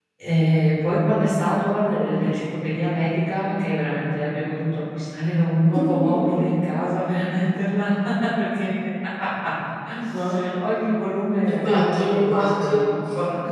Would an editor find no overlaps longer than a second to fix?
No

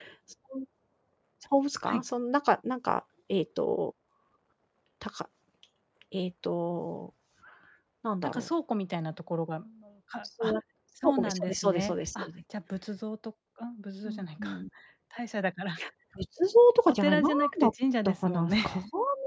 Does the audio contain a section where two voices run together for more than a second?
Yes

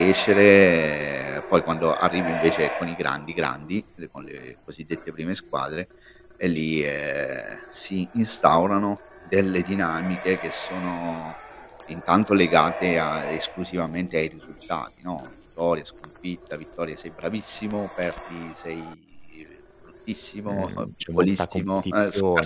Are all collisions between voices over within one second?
No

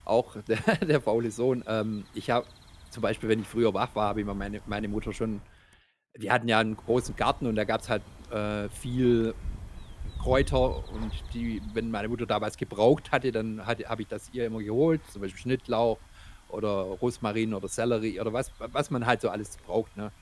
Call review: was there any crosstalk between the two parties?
No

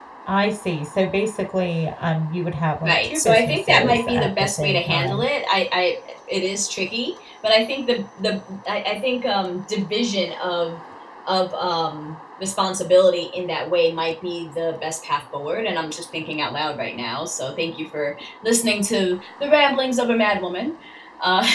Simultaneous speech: Yes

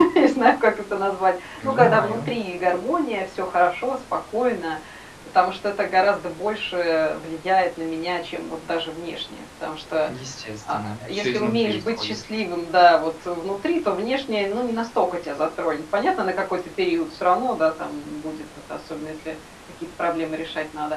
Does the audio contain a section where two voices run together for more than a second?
Yes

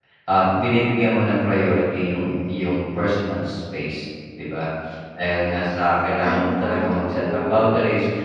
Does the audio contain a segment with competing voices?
Yes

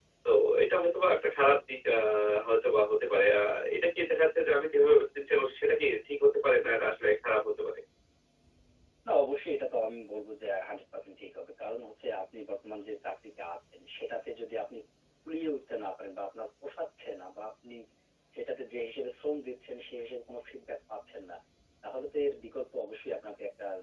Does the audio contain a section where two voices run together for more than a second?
No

